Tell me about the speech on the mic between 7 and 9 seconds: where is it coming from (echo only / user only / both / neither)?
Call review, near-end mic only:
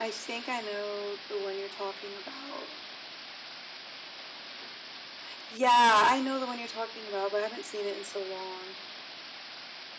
echo only